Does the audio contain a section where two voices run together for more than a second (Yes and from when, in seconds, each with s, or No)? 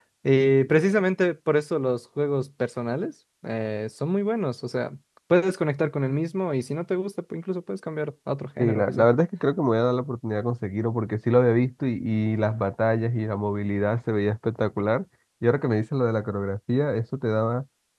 No